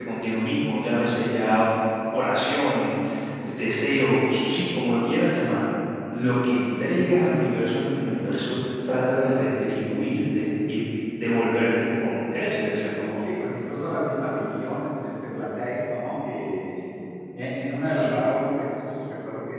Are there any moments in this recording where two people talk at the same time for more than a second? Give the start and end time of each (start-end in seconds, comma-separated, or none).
none